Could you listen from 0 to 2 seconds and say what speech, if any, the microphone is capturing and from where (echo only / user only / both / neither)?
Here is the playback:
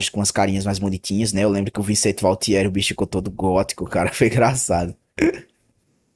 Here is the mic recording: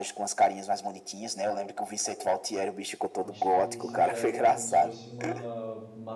echo only